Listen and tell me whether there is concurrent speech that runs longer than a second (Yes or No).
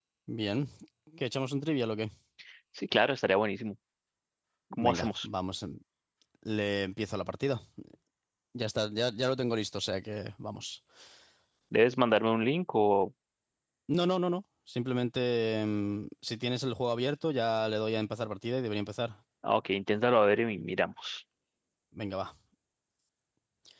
No